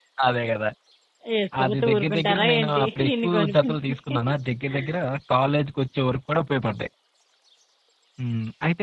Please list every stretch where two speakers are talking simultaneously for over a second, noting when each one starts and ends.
1.6-4.0

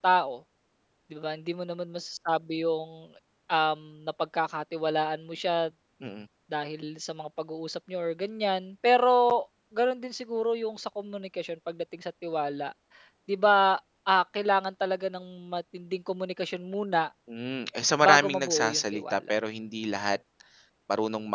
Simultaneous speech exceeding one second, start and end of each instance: 18.0-19.3

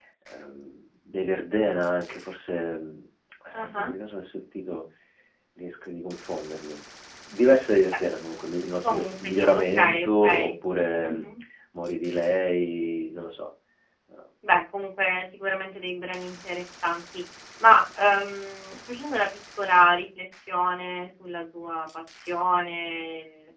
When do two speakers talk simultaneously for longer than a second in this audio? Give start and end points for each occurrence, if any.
8.8-10.4

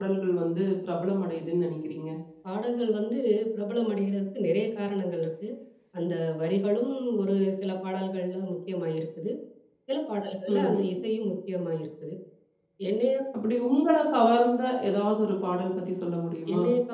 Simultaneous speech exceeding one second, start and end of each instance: none

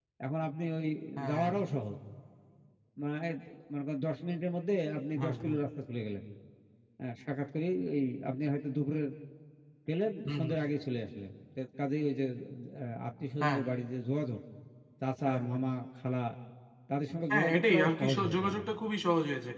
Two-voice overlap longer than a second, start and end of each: 17.3-18.6

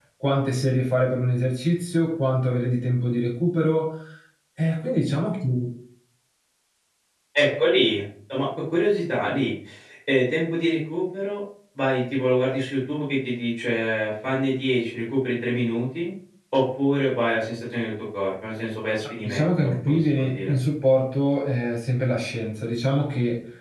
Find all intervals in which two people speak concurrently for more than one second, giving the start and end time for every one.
19.2-20.5

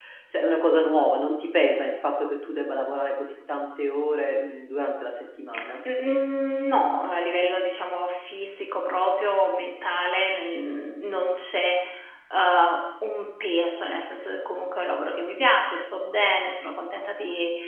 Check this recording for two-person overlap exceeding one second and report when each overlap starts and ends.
none

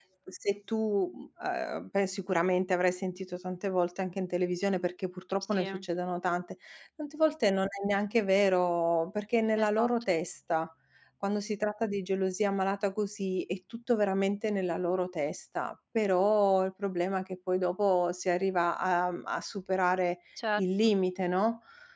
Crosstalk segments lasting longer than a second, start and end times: none

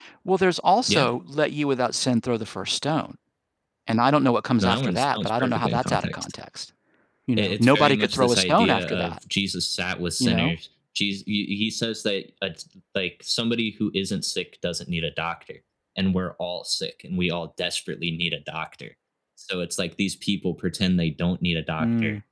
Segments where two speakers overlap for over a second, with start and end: 4.6-6.3, 7.4-9.2

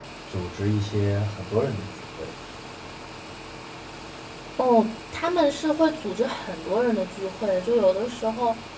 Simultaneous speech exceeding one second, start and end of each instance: none

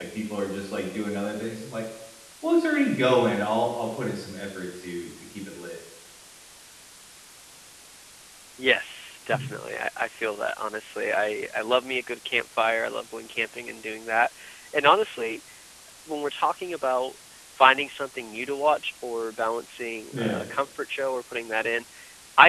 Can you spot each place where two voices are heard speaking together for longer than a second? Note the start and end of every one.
none

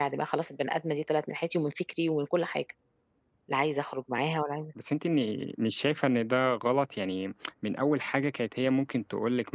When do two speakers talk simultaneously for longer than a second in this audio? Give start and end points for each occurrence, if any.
none

